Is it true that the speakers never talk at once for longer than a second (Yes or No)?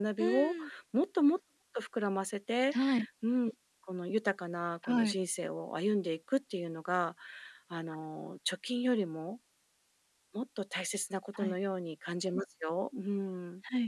Yes